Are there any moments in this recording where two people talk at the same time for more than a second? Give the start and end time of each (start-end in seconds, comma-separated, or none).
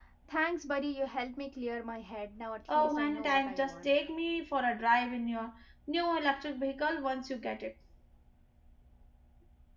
2.7-4.0